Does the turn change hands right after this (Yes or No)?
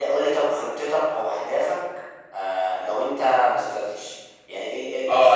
Yes